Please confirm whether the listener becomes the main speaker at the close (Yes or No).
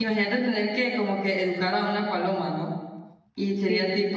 No